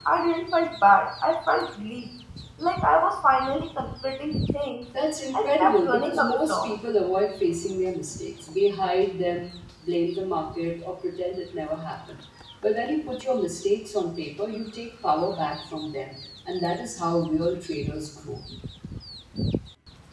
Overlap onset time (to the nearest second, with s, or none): 5 s